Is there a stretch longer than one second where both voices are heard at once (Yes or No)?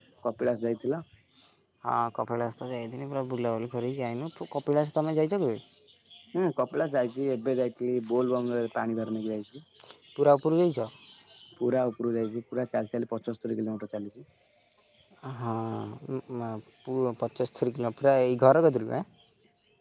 No